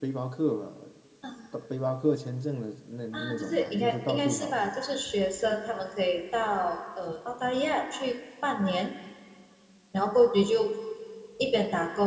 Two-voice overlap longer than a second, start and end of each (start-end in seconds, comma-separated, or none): 3.1-4.6